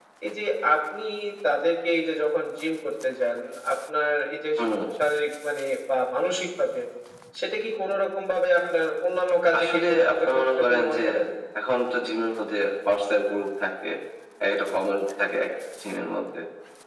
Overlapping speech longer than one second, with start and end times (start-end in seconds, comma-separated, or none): 9.5-11.0